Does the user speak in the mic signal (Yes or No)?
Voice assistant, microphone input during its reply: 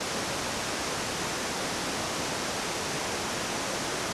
No